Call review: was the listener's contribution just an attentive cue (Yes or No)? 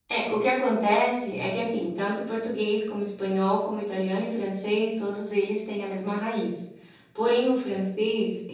Yes